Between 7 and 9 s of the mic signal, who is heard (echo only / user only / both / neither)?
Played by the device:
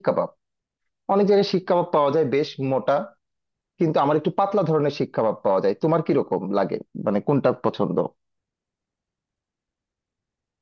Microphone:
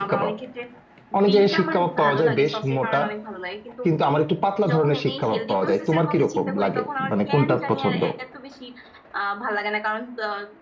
both